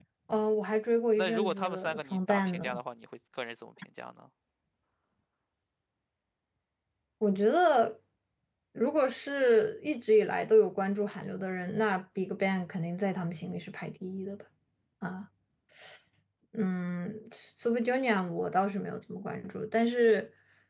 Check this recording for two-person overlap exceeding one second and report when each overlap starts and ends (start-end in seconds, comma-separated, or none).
1.2-2.8